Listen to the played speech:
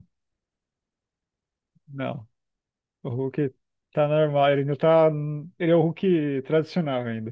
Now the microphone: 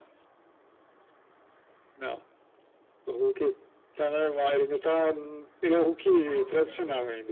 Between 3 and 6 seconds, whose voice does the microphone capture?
echo only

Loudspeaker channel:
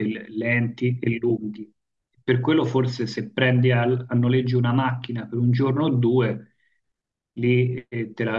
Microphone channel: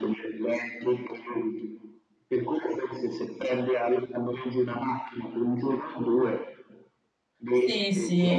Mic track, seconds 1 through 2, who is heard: echo only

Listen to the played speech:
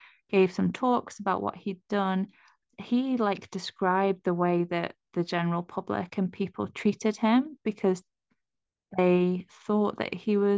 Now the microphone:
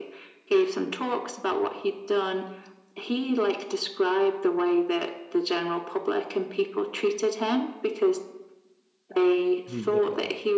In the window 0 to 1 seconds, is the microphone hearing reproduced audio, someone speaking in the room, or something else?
echo only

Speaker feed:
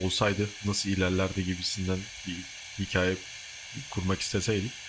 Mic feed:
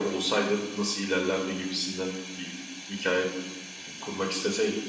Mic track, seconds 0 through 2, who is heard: echo only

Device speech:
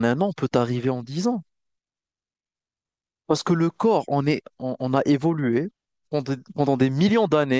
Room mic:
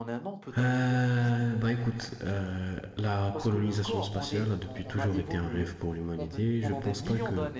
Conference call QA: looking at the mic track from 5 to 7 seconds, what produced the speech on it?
both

